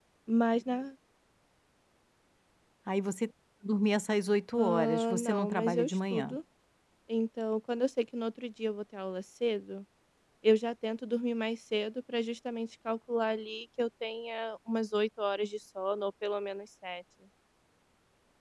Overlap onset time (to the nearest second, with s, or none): 5 s